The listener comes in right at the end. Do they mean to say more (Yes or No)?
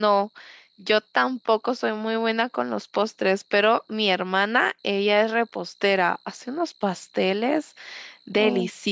No